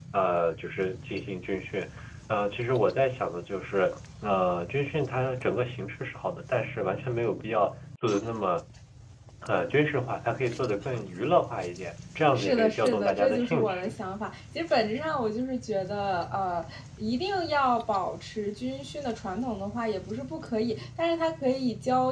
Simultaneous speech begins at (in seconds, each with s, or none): 12.3 s